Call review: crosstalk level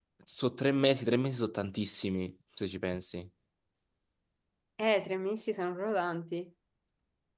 none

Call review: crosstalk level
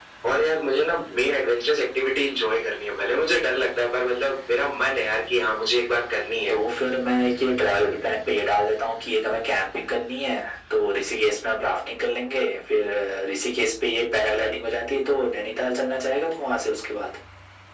none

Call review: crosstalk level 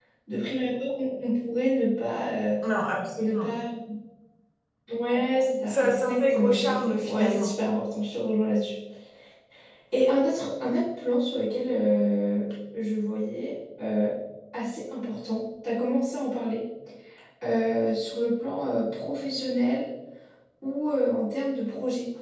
present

